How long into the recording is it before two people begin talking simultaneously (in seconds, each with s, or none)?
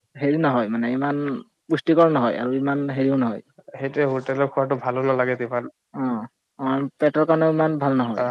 none